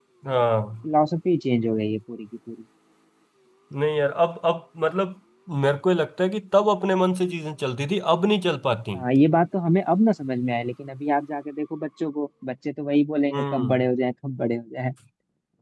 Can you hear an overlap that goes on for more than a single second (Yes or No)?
No